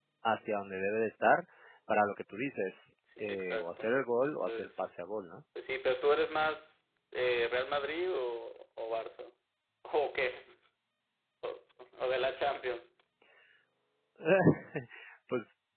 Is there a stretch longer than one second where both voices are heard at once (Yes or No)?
Yes